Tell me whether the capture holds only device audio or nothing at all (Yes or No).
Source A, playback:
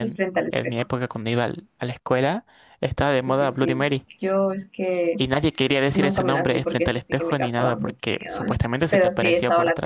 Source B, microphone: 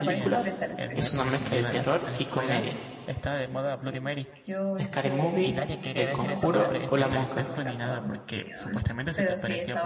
No